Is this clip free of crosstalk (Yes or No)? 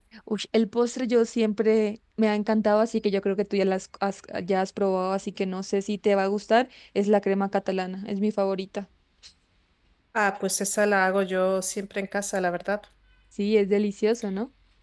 Yes